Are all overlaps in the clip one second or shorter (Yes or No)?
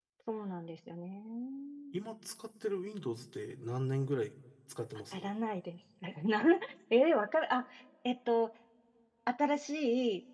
Yes